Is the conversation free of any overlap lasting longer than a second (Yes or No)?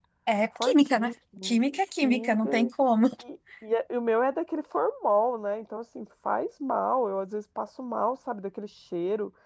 No